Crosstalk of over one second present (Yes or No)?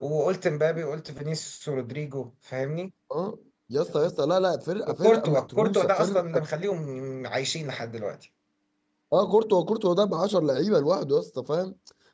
Yes